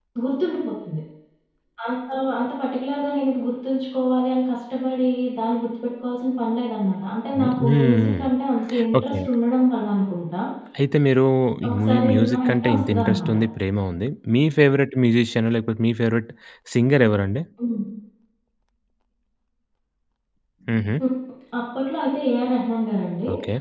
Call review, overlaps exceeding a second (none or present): present